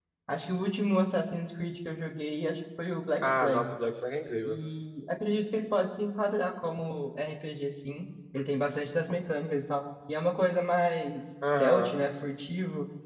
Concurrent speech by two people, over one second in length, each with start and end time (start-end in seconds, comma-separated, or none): none